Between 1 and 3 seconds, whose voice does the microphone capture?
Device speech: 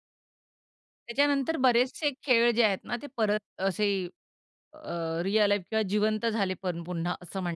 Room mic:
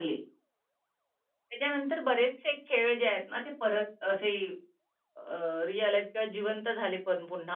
echo only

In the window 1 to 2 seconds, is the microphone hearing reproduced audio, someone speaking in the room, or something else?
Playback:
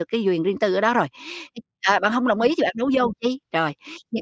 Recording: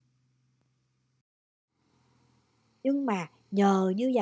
neither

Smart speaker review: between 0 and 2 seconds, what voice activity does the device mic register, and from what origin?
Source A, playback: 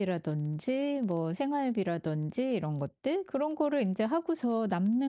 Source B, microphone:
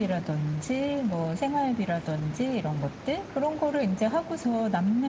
echo only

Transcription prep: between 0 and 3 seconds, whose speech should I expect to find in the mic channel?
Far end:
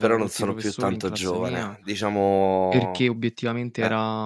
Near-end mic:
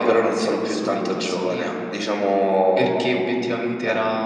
echo only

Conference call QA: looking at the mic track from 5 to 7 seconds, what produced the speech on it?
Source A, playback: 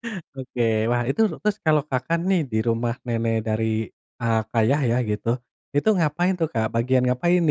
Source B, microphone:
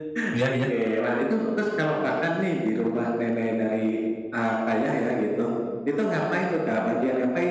echo only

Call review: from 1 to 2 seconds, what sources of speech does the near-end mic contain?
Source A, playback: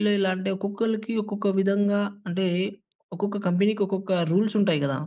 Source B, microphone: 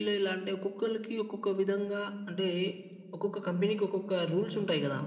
echo only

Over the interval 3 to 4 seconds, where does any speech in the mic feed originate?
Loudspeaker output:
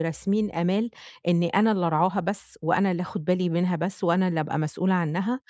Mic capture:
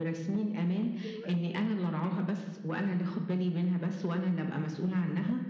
echo only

